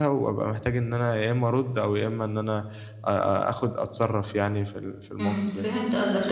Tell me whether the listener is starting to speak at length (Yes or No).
Yes